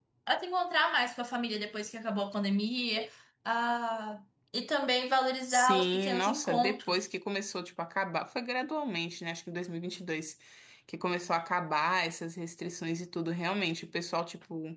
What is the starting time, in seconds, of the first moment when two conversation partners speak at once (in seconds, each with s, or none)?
5.5 s